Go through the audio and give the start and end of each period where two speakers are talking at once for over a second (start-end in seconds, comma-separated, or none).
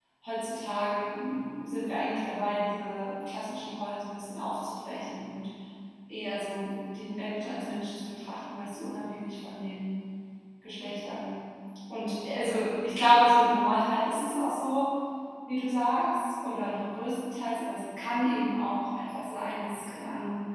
none